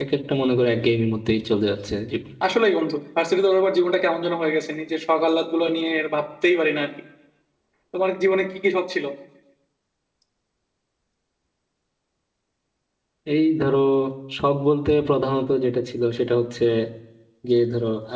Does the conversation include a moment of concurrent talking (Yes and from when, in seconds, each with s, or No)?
No